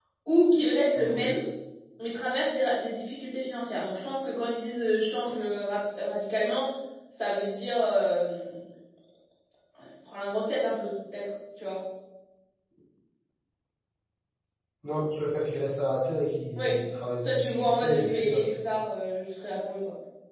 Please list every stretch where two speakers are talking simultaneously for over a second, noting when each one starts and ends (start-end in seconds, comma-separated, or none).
17.2-18.5